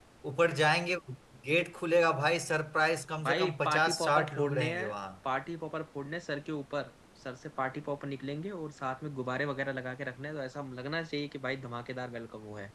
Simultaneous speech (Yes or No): Yes